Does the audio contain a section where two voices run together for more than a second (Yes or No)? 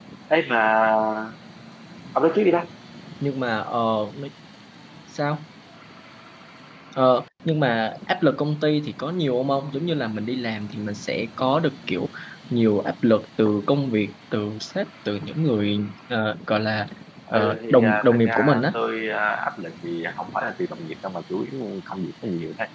Yes